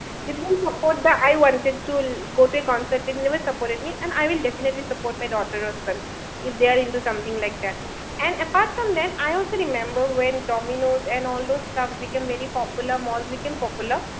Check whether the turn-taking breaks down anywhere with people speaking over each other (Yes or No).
No